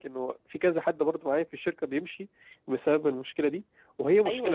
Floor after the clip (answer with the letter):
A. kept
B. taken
B